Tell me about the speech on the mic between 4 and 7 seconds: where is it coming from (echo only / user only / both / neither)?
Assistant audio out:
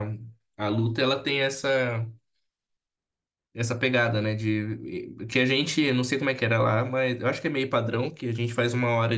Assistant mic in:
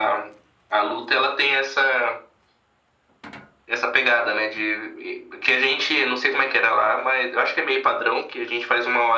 echo only